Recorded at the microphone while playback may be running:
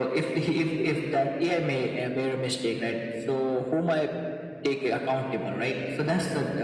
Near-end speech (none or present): none